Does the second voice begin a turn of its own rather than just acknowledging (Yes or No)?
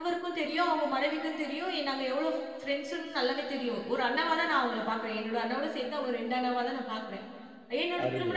No